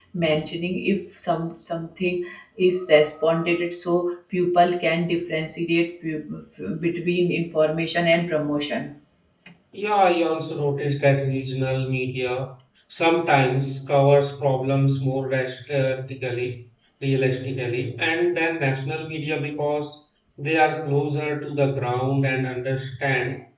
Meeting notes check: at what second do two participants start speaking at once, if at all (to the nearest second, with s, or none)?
none